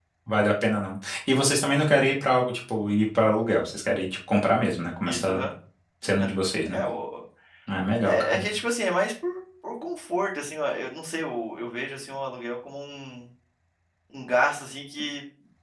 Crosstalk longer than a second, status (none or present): none